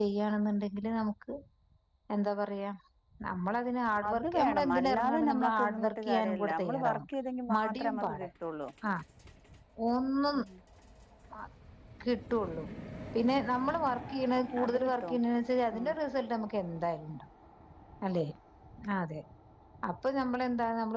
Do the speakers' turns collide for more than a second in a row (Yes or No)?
Yes